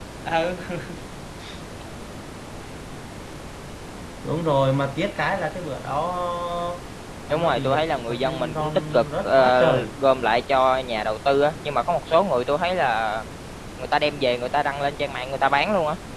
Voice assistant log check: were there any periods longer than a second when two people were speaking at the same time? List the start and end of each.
7.3-9.6

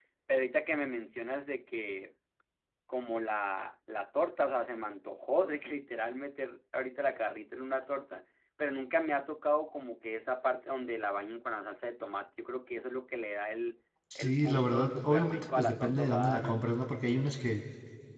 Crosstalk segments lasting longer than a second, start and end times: 14.2-16.6

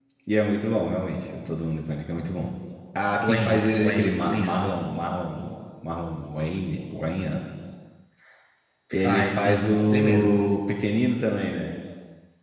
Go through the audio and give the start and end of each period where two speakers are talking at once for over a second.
3.2-4.7, 8.9-10.4

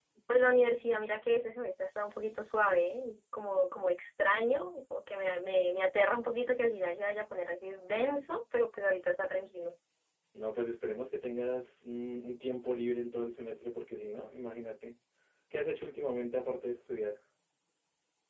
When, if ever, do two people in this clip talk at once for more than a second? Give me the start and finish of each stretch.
none

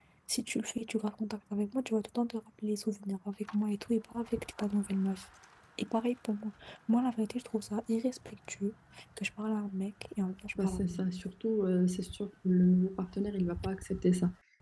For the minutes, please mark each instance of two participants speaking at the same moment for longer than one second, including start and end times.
none

